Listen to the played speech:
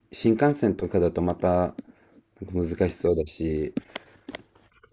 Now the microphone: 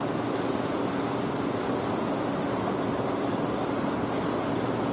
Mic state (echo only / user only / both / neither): neither